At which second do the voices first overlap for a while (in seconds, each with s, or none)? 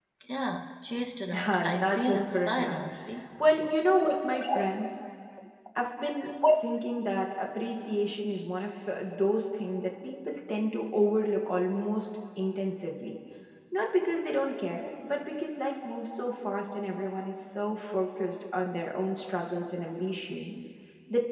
1.3 s